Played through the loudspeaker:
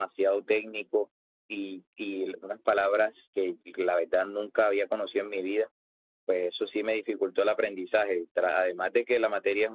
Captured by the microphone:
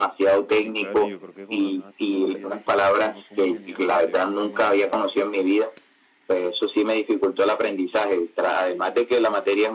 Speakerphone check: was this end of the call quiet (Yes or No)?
No